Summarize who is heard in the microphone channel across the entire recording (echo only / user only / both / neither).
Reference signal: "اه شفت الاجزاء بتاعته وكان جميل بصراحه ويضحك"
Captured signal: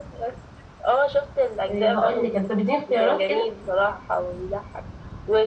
both